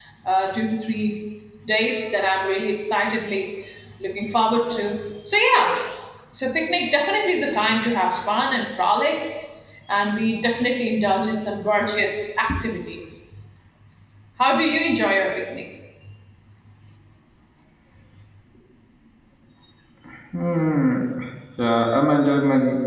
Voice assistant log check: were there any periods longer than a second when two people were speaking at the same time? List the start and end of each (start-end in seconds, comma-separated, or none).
none